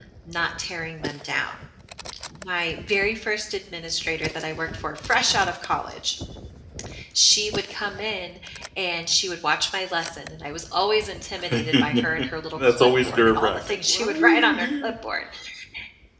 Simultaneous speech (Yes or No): Yes